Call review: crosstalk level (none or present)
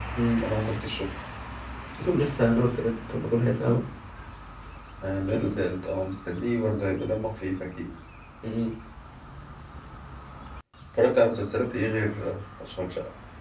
none